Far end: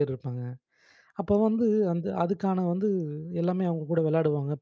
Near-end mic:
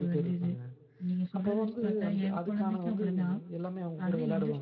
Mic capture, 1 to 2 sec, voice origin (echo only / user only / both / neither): both